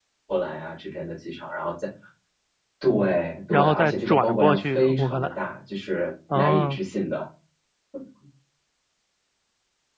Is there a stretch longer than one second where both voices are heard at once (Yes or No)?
Yes